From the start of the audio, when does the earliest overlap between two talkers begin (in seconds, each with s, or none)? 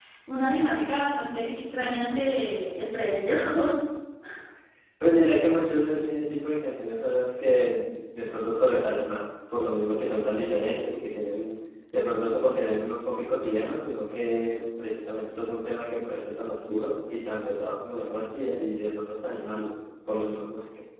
none